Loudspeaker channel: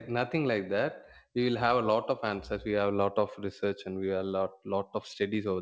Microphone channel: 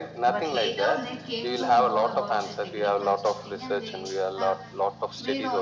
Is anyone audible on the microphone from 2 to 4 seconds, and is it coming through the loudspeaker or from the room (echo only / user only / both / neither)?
both